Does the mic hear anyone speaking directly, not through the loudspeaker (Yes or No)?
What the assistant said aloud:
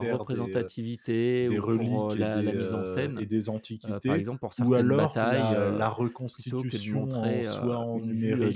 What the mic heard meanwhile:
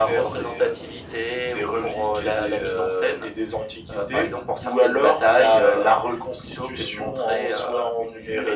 No